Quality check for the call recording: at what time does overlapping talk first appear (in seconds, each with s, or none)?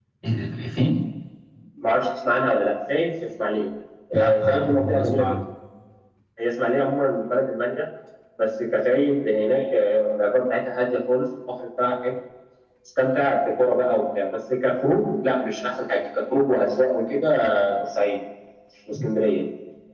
4.1 s